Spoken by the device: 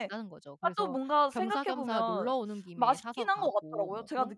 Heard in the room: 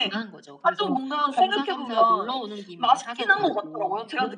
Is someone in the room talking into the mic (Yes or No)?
No